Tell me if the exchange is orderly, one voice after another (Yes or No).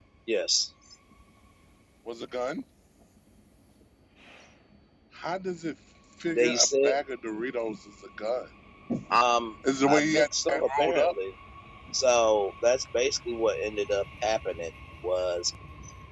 No